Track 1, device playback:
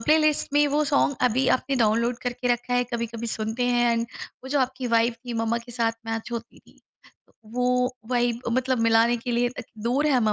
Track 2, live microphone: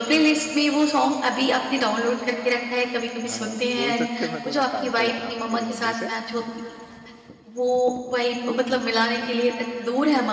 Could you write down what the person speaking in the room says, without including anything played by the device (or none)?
हाँ, बोल सकते हैं मैं थोड़ा पैम्पर्ड था मेरी मम्मी से।